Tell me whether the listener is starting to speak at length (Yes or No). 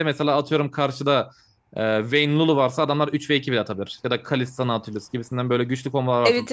No